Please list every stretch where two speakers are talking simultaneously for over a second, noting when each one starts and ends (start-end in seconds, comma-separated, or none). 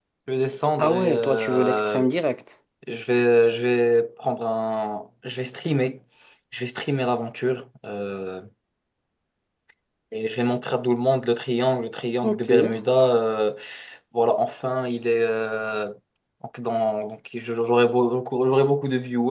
0.8-2.1